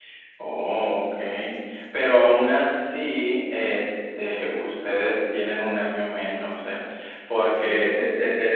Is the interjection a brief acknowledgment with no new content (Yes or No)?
Yes